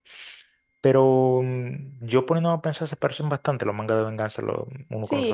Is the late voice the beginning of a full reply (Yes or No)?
Yes